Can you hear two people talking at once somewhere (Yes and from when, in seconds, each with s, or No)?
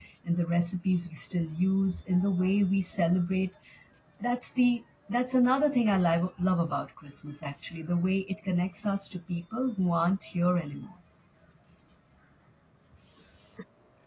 No